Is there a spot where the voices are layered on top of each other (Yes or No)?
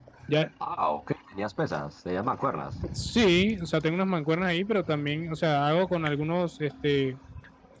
No